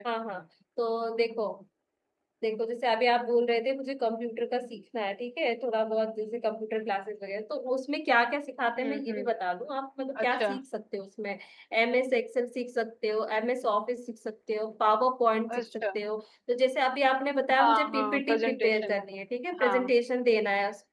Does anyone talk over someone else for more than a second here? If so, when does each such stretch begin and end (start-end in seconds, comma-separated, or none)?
17.6-19.0